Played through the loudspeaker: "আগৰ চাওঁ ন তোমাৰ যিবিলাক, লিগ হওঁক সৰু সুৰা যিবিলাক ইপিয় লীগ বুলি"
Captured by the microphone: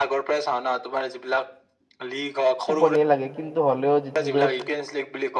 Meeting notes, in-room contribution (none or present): present